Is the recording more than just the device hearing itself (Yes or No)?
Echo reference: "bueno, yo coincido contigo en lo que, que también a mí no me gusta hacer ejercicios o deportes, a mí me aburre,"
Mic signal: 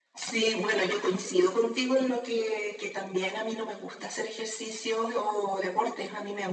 No